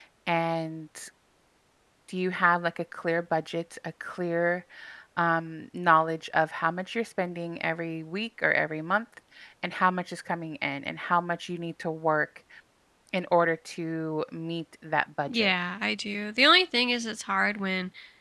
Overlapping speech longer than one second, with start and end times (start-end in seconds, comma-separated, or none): none